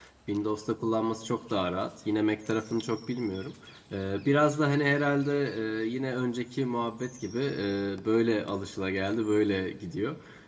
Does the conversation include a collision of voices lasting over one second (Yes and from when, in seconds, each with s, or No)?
No